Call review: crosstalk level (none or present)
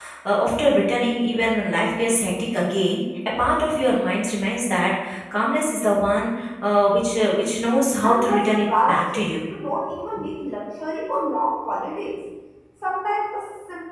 present